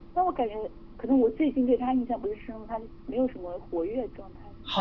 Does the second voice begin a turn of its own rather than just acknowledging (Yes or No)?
Yes